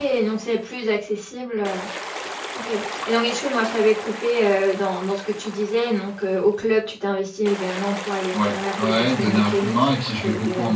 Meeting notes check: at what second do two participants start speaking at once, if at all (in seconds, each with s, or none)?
8.3 s